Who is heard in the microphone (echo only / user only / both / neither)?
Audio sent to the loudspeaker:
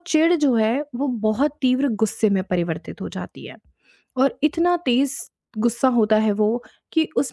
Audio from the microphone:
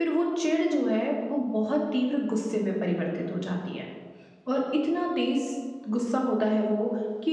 echo only